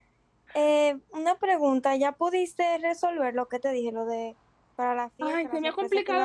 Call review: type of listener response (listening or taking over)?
taking over